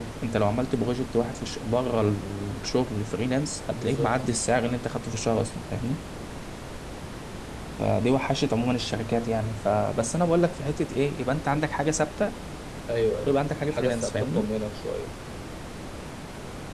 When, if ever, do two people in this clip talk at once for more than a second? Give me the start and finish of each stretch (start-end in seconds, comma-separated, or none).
13.2-14.5